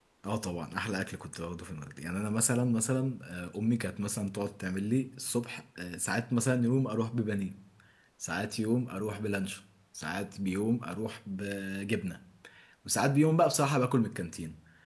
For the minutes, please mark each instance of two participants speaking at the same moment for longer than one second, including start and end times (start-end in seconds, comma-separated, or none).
none